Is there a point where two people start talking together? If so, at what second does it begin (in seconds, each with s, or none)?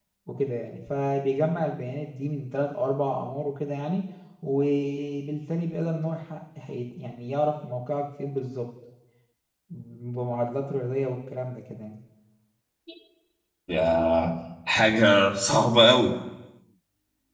none